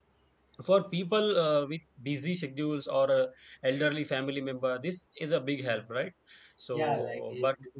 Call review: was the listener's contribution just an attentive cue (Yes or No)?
No